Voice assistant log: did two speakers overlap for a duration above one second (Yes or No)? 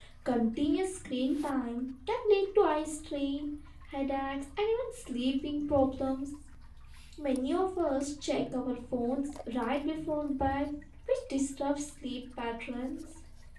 No